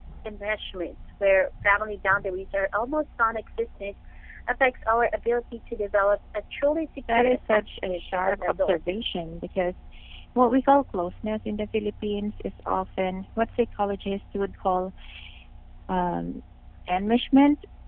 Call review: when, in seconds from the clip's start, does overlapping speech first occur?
7.1 s

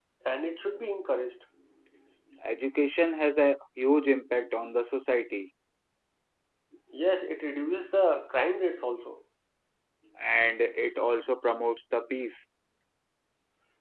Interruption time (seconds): none

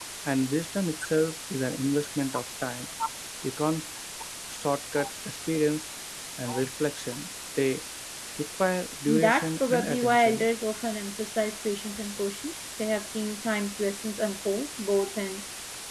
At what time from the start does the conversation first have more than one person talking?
9.1 s

